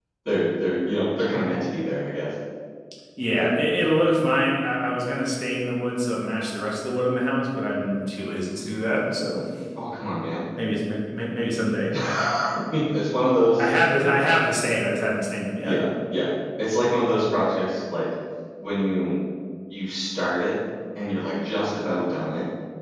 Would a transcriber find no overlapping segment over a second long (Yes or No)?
Yes